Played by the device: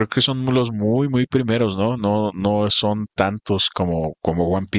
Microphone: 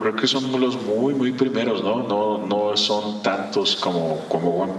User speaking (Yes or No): No